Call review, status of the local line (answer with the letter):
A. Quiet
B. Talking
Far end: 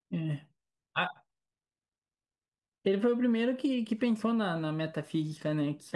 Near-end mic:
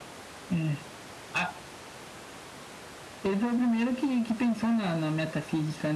A